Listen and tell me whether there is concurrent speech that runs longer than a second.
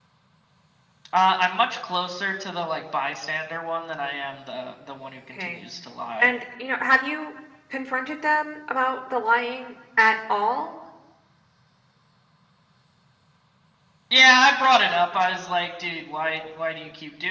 No

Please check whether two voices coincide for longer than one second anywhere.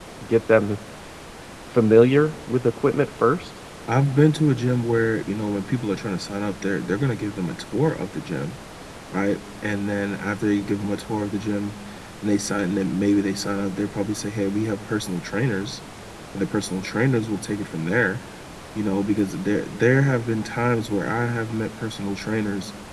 No

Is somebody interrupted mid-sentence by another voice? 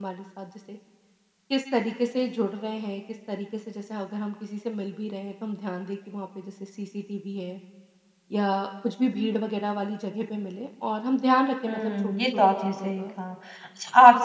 Yes, from 11.7 s

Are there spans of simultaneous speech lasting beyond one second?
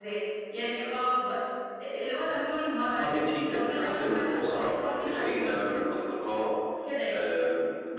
Yes, from 2.8 s

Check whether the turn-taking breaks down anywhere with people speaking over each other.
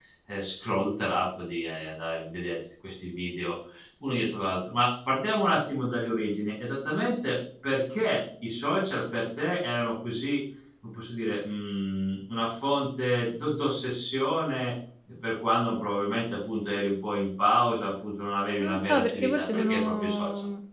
Yes, from 18.6 s

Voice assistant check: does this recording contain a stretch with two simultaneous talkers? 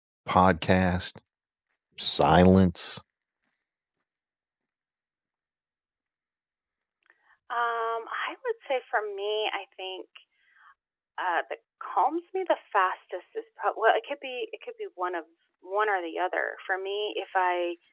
No

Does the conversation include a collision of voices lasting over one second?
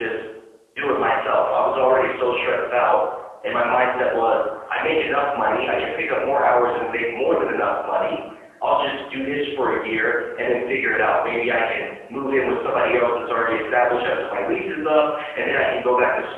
No

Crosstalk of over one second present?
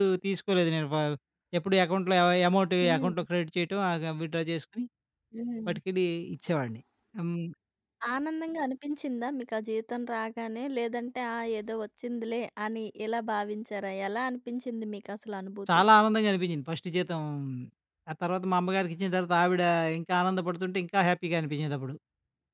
No

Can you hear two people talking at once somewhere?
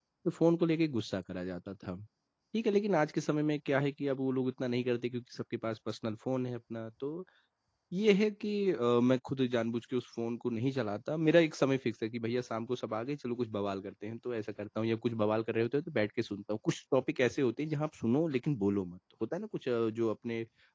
No

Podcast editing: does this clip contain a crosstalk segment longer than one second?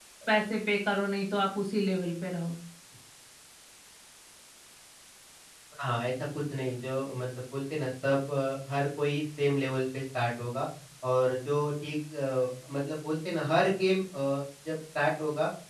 No

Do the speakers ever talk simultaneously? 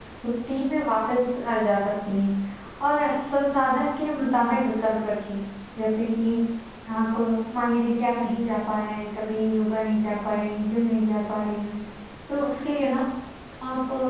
No

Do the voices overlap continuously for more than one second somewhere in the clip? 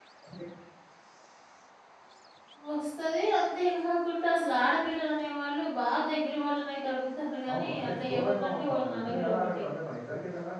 Yes, from 7.5 s

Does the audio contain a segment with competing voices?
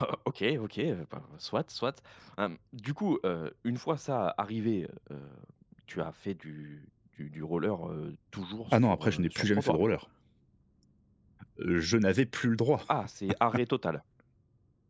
Yes, from 8.7 s

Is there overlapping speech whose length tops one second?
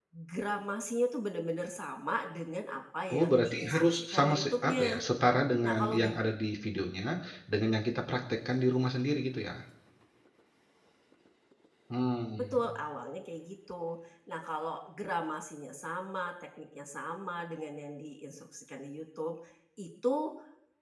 Yes, from 3.1 s

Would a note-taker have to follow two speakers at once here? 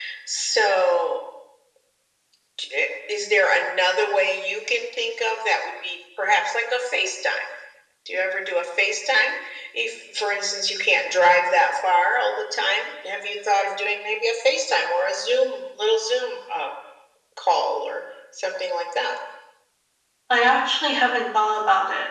No

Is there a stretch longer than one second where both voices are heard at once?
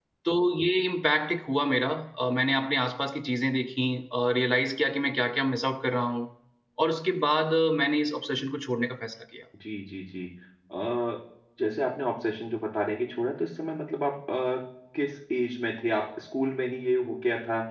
No

